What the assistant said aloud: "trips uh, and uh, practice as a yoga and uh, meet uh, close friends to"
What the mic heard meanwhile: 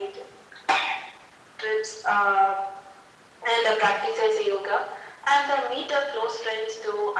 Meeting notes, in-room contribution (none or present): none